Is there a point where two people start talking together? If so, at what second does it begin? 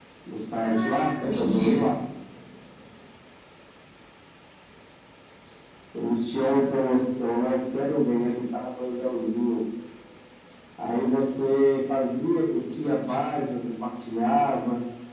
1 s

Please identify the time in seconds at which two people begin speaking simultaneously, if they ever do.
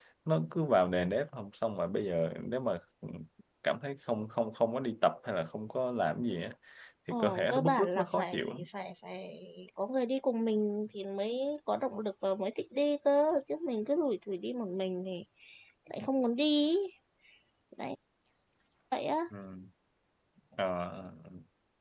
7 s

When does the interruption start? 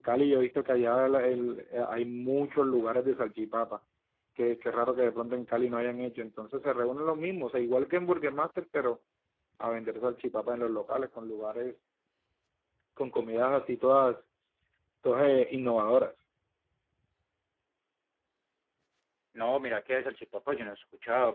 none

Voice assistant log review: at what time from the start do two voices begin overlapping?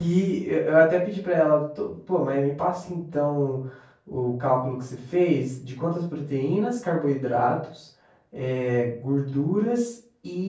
none

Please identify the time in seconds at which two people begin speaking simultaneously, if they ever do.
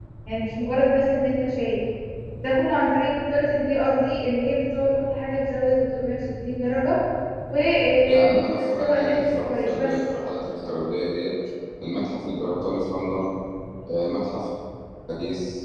8 s

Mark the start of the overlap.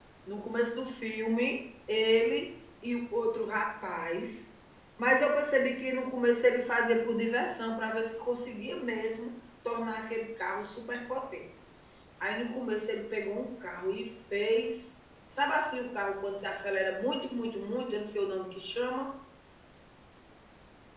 none

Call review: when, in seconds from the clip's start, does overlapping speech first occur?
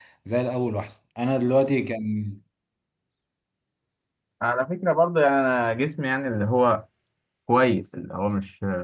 none

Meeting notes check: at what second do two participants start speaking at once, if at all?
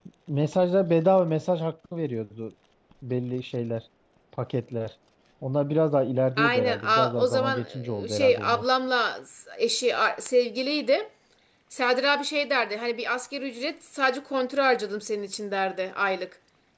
6 s

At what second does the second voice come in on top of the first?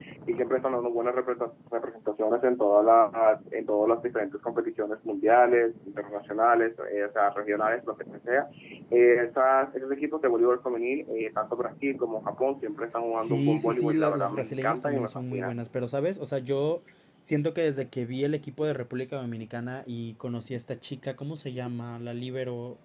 13 s

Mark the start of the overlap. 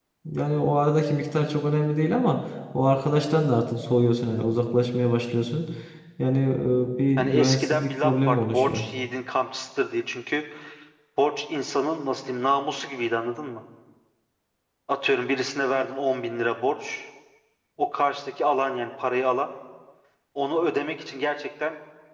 7 s

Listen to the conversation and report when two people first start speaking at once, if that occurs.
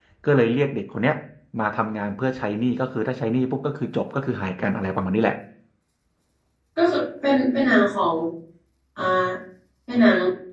none

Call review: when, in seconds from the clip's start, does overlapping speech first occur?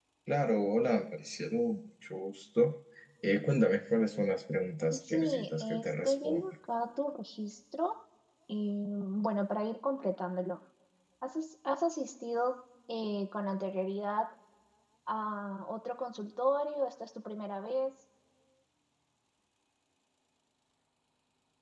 5 s

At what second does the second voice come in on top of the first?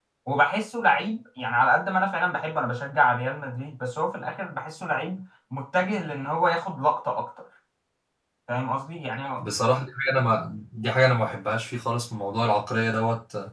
none

